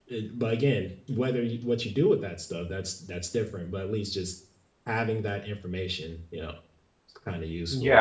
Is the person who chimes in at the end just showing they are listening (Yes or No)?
No